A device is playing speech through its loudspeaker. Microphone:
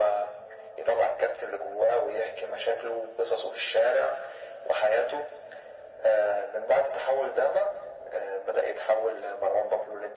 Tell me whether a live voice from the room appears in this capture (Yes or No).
No